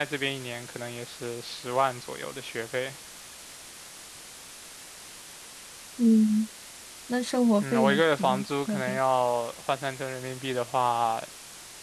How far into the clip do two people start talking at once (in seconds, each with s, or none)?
7.6 s